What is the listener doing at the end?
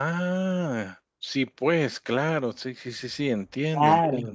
taking over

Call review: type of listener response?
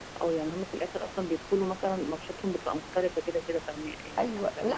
taking over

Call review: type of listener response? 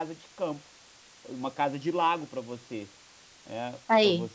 listening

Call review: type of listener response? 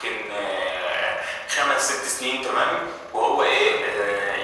listening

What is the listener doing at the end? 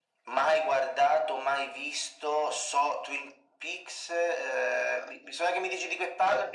taking over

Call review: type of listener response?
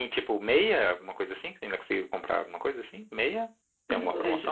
taking over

